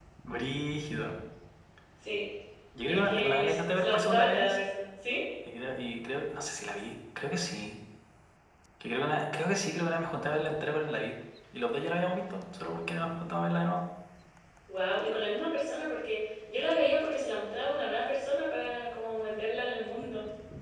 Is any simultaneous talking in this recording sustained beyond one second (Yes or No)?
Yes